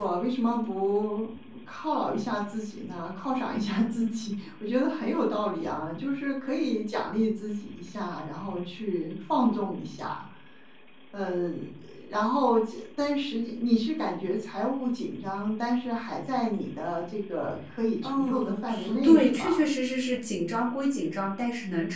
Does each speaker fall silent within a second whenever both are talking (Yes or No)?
No